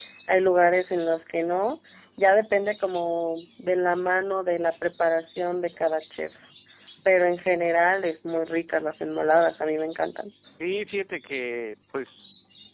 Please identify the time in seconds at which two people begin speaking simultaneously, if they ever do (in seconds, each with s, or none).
none